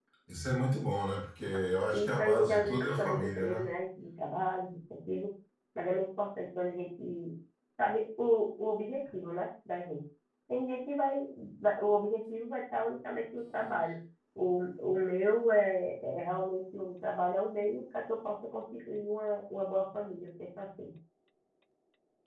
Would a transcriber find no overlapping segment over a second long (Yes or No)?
No